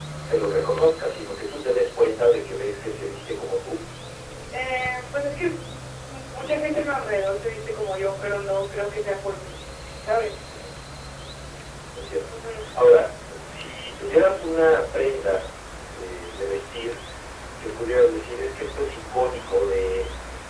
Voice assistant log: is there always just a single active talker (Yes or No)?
Yes